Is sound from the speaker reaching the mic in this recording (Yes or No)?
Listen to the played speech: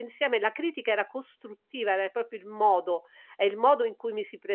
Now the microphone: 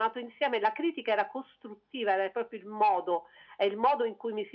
Yes